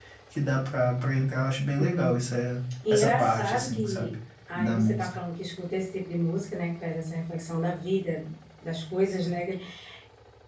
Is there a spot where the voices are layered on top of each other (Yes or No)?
Yes